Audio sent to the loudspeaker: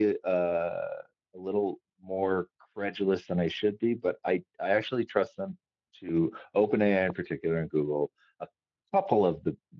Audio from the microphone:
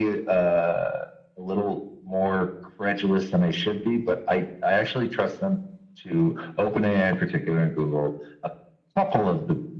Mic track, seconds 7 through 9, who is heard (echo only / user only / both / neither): echo only